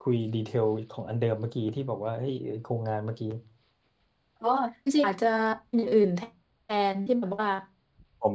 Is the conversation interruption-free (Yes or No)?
Yes